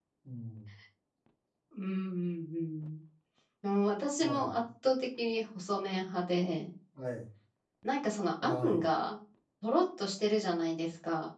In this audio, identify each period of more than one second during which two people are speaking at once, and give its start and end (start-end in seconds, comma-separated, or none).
none